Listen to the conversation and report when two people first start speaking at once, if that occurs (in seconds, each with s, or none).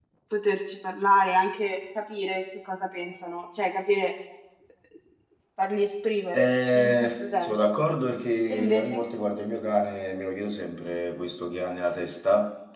6.3 s